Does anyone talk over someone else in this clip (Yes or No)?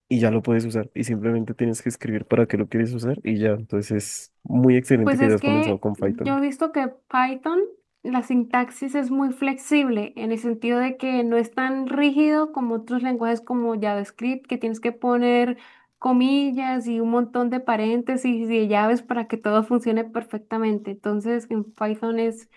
Yes